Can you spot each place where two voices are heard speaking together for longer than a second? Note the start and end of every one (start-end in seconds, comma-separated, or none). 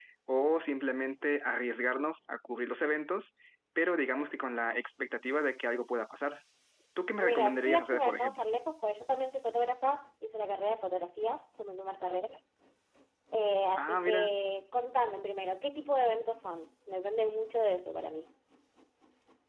7.2-8.4